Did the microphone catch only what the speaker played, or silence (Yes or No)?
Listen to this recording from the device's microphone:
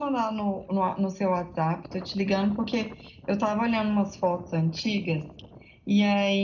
Yes